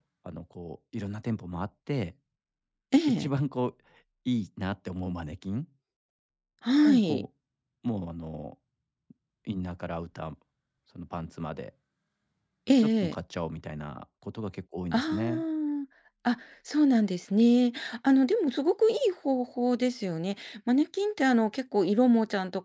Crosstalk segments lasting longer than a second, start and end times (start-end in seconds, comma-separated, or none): none